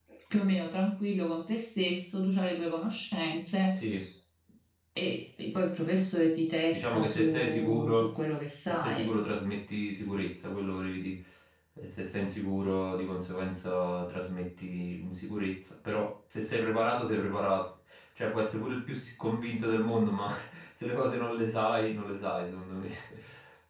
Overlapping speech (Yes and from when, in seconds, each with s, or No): Yes, from 6.7 s